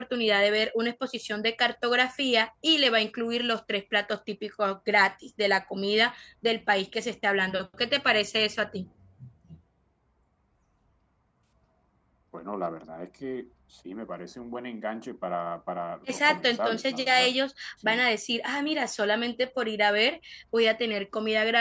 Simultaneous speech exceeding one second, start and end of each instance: 16.1-17.3

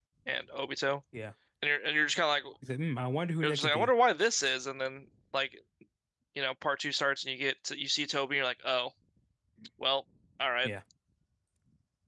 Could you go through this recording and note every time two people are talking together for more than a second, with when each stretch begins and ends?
none

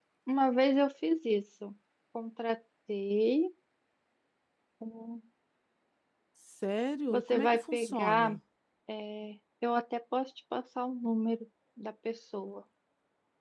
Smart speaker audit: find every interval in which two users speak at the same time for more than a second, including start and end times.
7.1-8.4

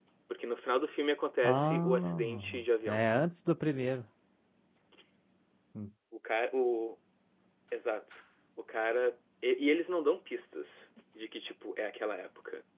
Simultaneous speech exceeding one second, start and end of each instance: 1.4-3.0

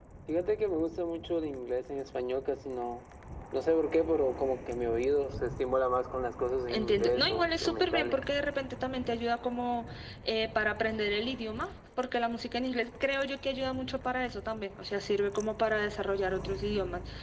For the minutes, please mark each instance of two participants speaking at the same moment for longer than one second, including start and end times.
6.7-8.2

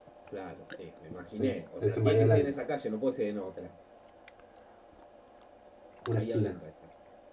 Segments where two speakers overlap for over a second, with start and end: 1.3-2.5

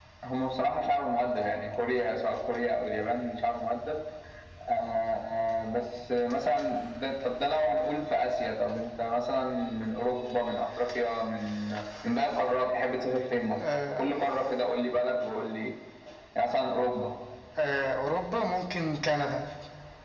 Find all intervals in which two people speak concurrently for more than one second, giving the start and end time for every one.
none

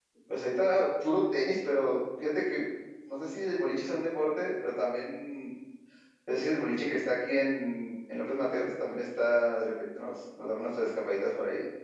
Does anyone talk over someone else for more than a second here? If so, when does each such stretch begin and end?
none

